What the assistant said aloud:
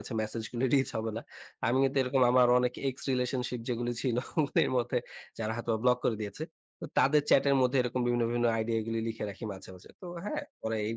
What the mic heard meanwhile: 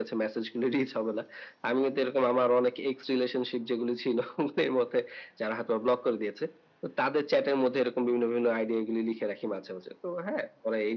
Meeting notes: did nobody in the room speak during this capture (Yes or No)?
Yes